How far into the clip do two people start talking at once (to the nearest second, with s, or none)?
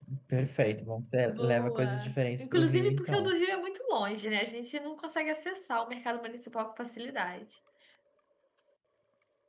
1 s